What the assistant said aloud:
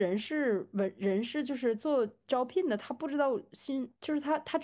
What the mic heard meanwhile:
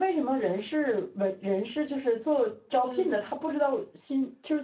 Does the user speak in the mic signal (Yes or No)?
Yes